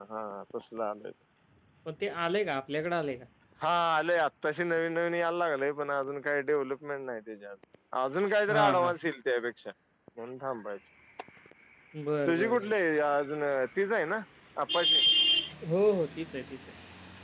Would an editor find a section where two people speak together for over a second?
No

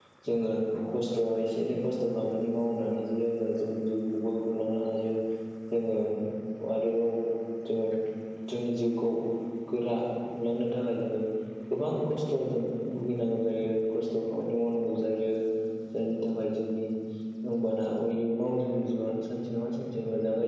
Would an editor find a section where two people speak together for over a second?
No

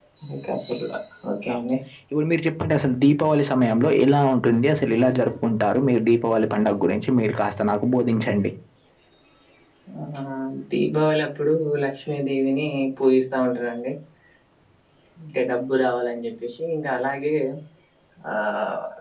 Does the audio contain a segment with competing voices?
No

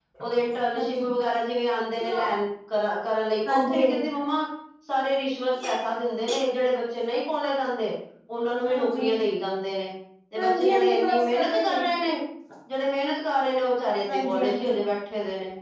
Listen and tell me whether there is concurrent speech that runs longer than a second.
Yes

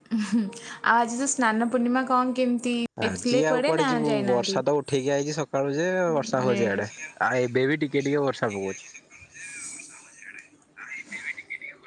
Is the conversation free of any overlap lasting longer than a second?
No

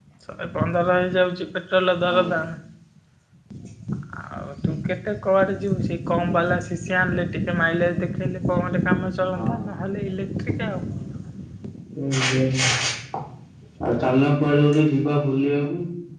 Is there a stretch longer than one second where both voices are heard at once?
No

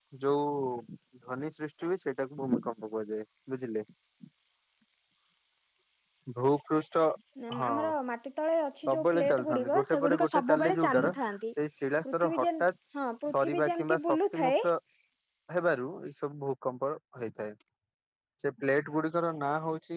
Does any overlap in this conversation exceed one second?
Yes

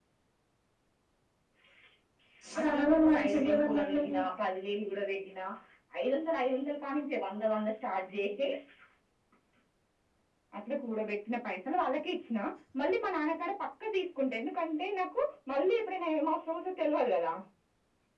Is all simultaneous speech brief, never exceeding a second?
No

